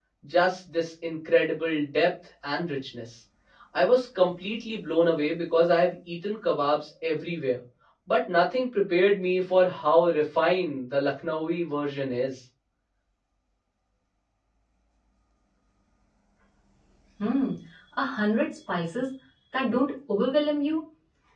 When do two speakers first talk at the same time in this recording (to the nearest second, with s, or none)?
none